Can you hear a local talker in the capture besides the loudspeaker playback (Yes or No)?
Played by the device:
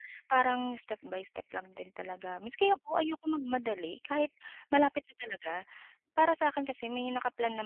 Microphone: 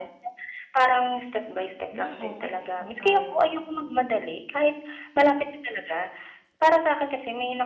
Yes